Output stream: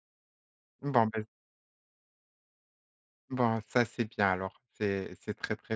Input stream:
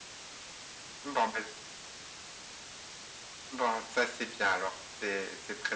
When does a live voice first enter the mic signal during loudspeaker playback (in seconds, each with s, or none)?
none